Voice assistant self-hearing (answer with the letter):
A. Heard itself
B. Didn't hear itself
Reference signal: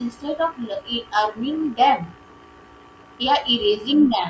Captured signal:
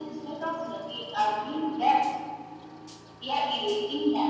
A